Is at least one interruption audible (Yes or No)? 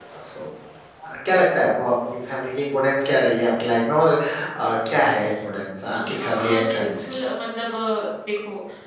Yes